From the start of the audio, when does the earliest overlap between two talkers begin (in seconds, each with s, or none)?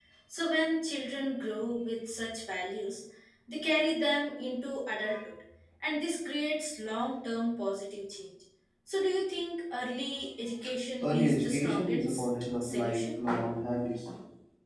11.0 s